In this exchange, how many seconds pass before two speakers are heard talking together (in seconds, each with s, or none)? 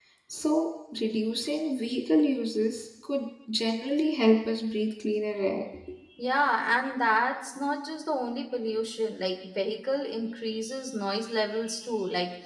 none